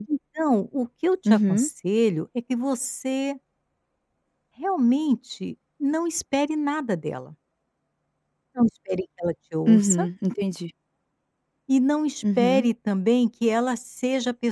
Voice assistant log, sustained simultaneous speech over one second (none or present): none